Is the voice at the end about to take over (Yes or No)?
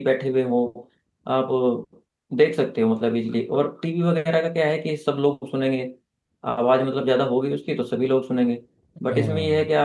No